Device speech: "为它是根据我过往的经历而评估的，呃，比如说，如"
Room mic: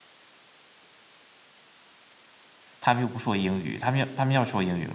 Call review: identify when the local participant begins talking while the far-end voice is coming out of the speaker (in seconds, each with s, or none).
2.8 s